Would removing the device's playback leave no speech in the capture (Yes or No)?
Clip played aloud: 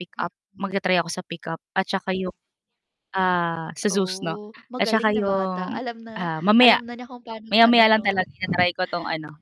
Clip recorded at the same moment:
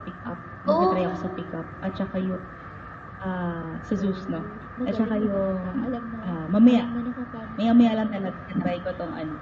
No